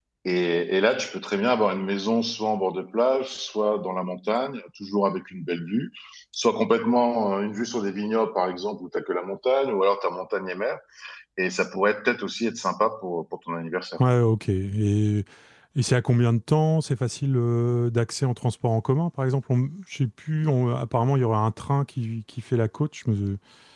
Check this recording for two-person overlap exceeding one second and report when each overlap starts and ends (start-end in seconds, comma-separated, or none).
none